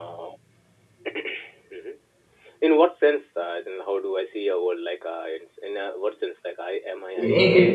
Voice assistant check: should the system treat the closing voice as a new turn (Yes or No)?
Yes